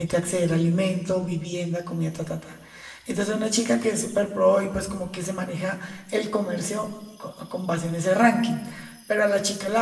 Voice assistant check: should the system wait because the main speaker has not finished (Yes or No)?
Yes